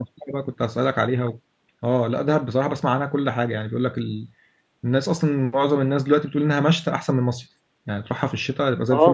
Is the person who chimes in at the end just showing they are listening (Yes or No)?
No